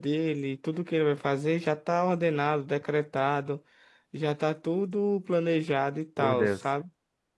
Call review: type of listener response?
listening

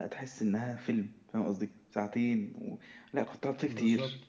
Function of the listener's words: listening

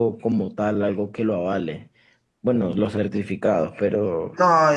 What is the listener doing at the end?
taking over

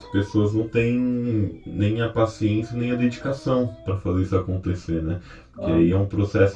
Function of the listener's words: listening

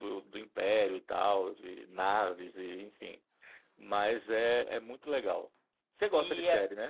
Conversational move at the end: taking over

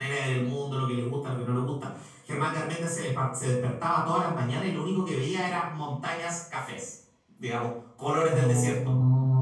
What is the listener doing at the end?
taking over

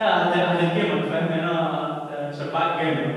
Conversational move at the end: taking over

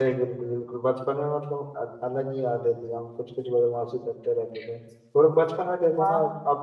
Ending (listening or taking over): listening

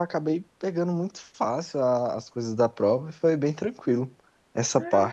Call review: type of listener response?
taking over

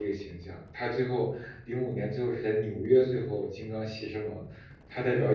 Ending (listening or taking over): listening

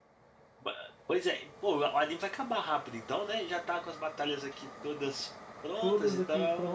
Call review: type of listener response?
taking over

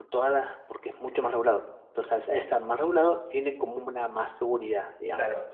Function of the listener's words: taking over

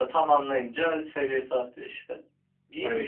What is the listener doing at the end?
taking over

